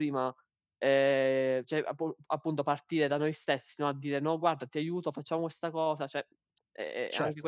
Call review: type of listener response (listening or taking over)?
taking over